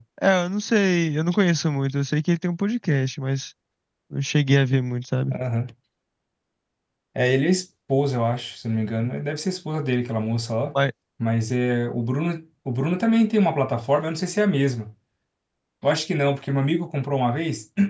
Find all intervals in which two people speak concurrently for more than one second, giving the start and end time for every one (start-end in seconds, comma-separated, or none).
none